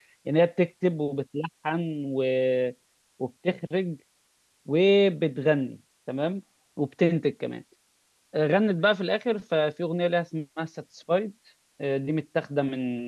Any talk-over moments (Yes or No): No